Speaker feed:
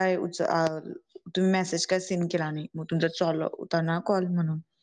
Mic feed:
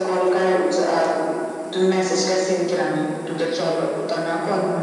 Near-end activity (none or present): none